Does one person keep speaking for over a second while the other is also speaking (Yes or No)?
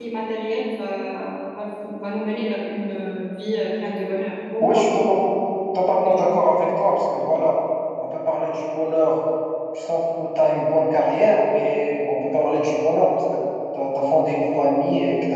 No